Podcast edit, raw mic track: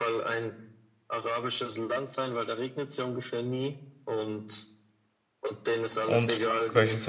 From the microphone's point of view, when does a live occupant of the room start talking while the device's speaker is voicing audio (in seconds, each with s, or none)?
6.0 s